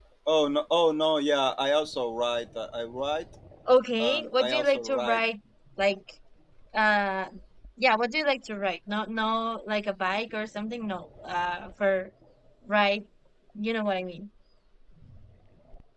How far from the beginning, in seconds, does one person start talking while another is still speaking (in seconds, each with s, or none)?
4.0 s